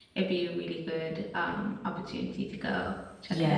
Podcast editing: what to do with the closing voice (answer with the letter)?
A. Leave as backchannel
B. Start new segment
B